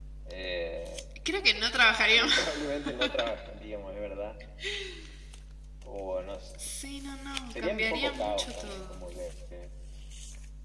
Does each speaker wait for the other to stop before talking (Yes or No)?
No